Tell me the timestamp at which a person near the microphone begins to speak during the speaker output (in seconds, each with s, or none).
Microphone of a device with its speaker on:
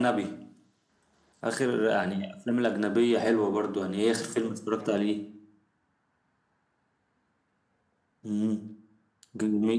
none